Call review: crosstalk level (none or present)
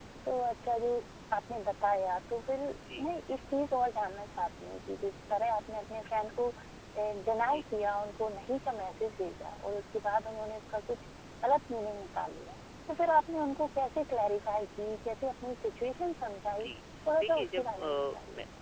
present